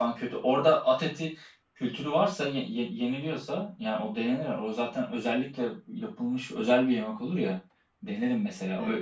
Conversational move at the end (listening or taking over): taking over